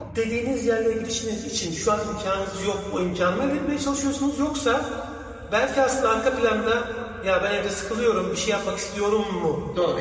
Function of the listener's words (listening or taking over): taking over